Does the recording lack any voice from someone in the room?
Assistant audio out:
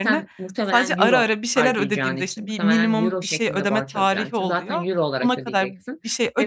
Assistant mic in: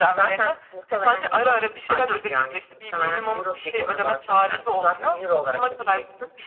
Yes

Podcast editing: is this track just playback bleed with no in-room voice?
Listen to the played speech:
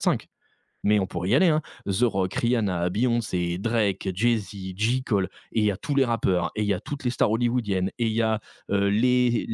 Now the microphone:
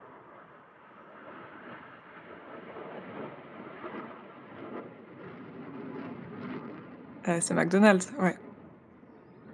No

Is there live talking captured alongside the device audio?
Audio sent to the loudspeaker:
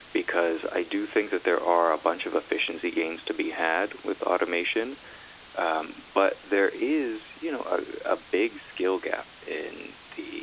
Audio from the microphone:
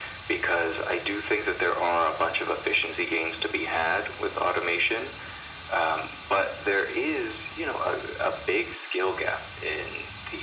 No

